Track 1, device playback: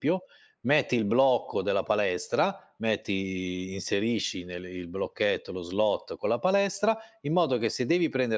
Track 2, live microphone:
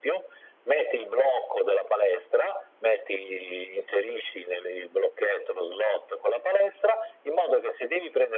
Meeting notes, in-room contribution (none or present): none